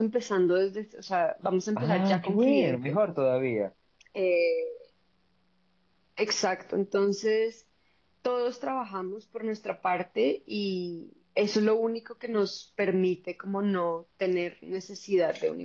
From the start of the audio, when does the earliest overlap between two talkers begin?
1.8 s

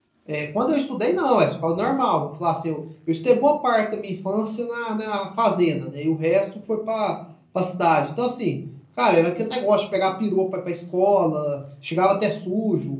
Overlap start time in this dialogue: none

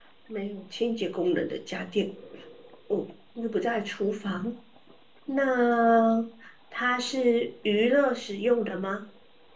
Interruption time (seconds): none

